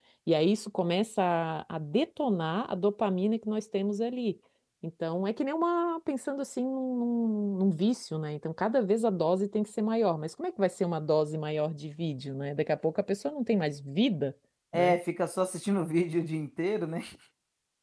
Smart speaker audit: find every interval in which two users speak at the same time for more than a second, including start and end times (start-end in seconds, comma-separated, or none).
none